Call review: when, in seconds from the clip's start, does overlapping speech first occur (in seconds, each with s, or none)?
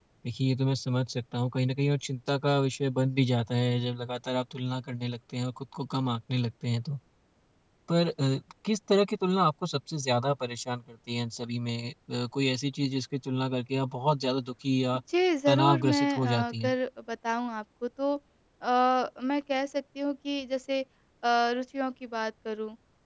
15.5 s